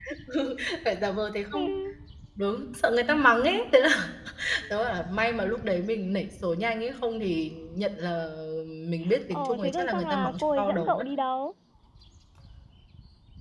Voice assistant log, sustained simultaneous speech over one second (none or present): present